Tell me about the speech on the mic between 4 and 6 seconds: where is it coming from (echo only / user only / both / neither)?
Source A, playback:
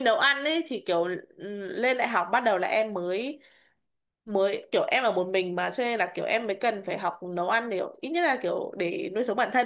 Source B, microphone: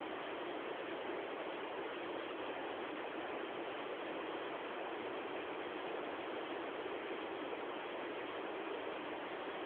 neither